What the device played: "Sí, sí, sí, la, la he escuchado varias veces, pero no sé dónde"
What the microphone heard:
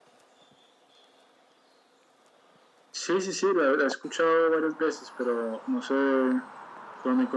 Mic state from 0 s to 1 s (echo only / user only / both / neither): neither